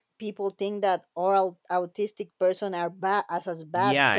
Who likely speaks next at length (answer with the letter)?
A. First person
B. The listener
B